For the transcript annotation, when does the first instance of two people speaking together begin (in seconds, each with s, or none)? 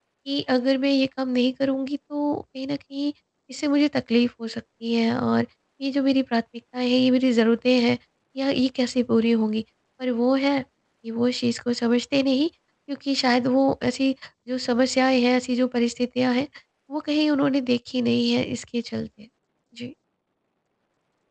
none